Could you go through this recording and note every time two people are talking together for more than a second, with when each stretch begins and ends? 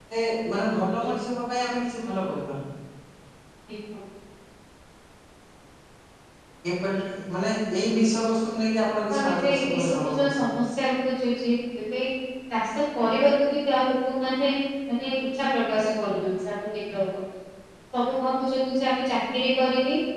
9.1-10.4

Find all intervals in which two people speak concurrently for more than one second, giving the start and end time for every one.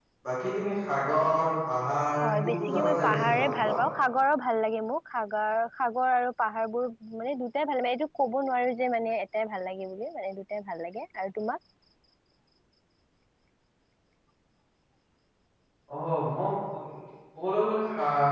2.2-3.8

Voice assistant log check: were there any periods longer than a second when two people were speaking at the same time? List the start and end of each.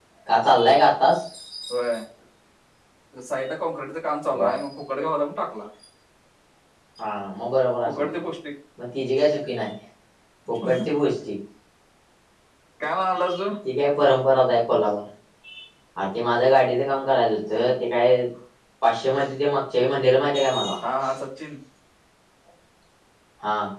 none

